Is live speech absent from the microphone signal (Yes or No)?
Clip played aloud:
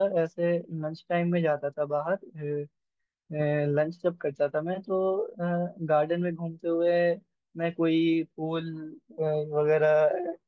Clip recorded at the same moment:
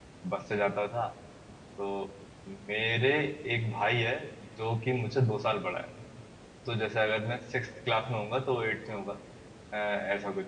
No